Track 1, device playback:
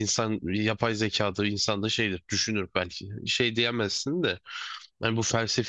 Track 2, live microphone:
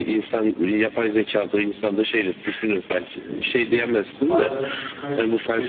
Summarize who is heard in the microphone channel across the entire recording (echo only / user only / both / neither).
both